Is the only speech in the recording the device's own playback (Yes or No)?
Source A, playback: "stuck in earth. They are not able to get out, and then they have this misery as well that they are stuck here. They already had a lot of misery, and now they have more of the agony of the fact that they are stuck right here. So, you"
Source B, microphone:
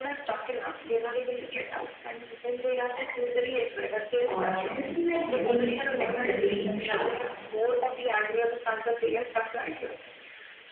No